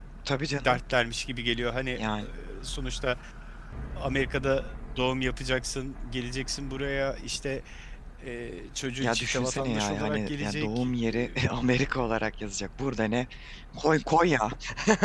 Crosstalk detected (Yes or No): Yes